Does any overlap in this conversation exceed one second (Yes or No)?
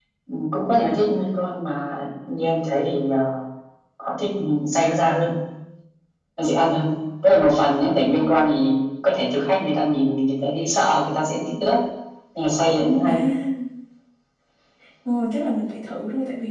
No